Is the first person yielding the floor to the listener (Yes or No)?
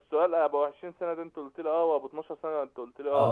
Yes